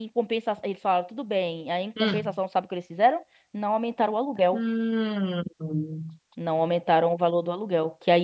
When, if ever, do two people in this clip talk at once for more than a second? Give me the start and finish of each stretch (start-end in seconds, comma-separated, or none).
none